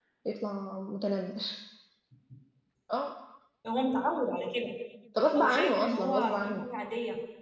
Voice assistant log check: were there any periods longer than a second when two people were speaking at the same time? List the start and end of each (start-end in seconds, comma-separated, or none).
5.4-6.6